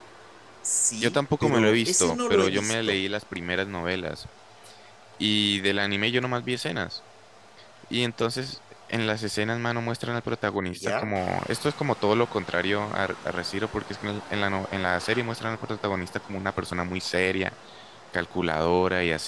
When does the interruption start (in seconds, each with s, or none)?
1.0 s